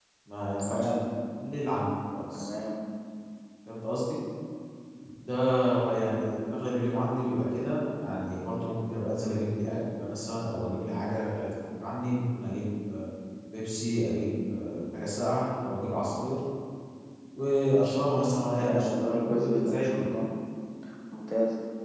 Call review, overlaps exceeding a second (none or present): present